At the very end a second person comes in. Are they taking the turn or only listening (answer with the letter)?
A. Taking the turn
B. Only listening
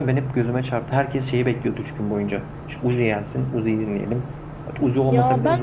A